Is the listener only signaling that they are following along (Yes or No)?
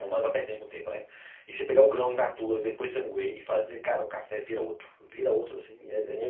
No